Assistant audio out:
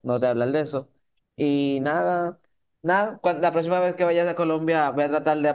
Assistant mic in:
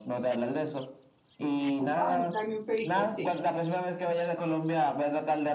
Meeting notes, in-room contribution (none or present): present